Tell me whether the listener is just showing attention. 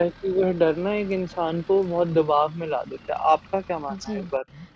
No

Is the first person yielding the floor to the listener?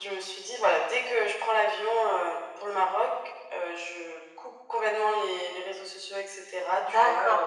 Yes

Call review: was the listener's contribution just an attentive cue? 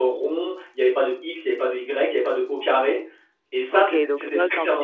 No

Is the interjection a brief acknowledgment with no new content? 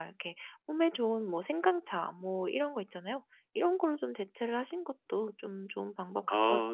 No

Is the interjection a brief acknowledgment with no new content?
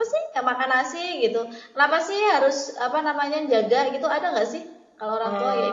No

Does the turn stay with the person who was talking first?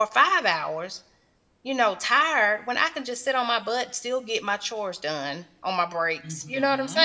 No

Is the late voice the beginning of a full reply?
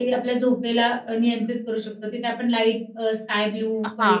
Yes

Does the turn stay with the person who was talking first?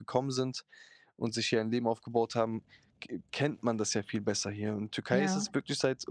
Yes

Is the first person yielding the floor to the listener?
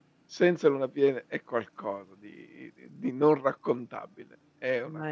No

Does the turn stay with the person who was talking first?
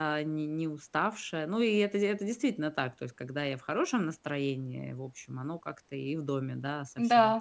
Yes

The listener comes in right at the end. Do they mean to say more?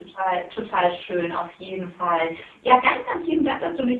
No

